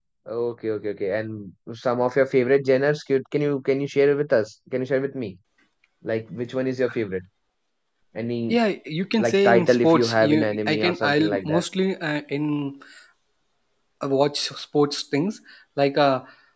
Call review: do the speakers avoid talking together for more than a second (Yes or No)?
No